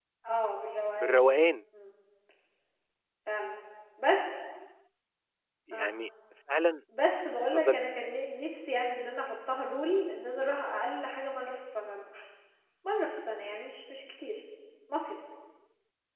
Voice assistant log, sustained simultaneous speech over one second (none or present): none